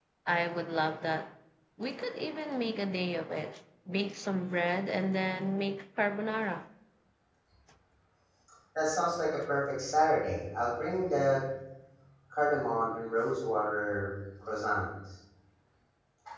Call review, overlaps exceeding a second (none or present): none